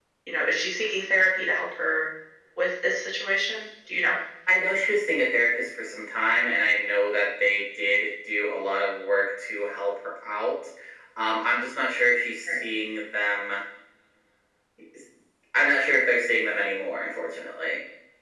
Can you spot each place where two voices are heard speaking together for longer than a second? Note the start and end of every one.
none

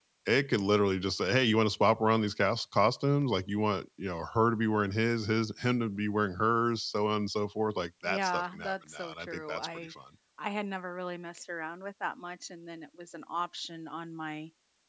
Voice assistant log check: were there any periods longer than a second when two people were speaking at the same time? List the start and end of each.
8.0-9.9

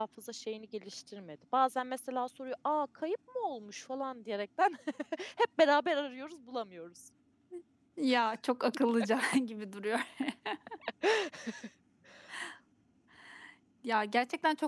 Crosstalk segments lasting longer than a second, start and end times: none

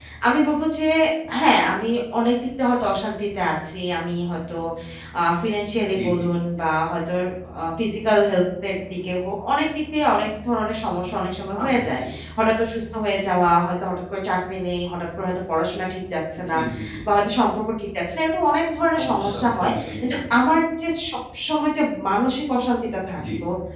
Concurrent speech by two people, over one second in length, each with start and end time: 18.9-20.2

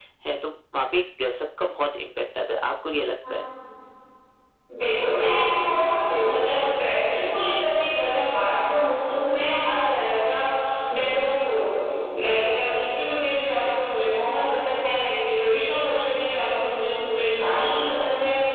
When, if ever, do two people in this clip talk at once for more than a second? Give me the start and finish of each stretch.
none

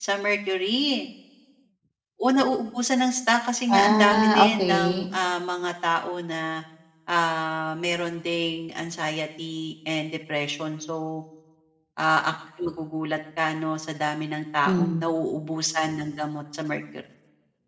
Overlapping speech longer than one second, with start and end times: 3.7-5.1

